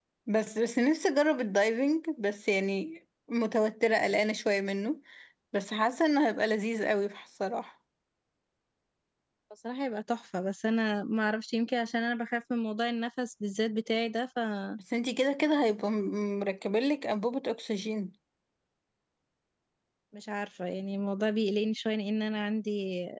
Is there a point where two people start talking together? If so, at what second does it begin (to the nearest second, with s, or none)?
none